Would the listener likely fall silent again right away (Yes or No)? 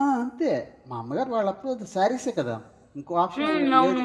Yes